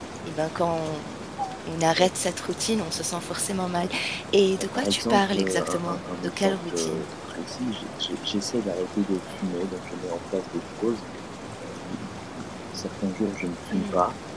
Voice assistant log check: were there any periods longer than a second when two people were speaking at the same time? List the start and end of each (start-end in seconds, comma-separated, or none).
4.8-7.0